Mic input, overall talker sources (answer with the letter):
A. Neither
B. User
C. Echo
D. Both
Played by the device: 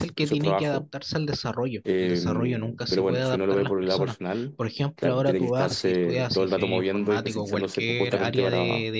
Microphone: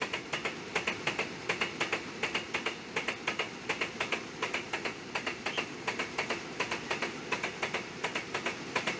A